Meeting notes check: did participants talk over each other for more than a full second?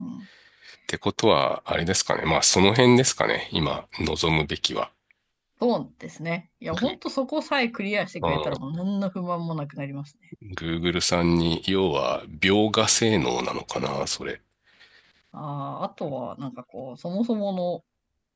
No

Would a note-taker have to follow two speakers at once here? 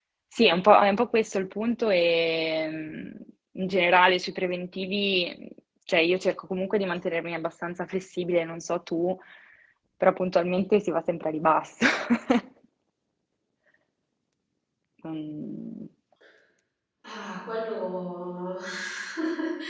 No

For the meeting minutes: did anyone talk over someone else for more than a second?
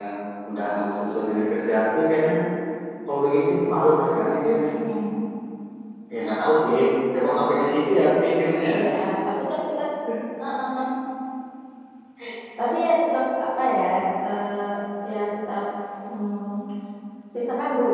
No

